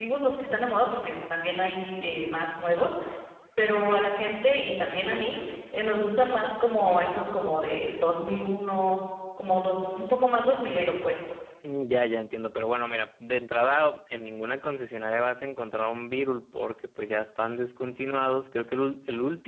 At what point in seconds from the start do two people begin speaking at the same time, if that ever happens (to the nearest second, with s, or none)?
none